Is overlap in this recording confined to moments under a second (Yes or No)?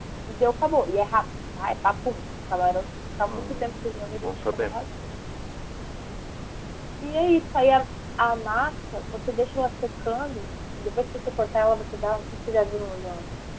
No